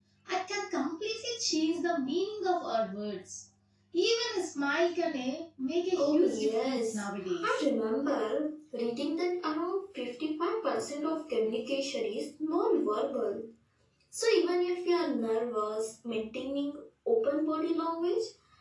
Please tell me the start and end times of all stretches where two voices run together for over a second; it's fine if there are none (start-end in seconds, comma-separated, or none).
6.0-7.6